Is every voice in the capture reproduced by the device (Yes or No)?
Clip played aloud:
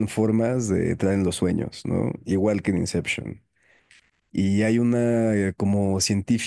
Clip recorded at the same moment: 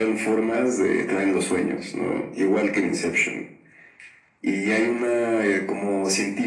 Yes